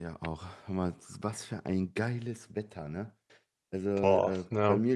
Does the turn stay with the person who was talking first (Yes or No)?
Yes